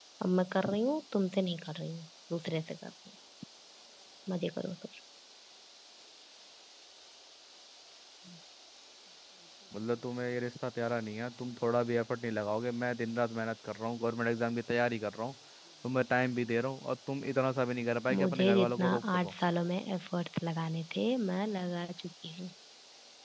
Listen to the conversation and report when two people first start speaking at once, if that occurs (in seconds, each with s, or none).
18.1 s